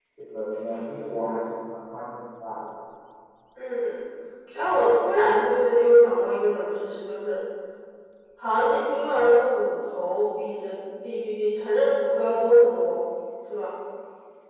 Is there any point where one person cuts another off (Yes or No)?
No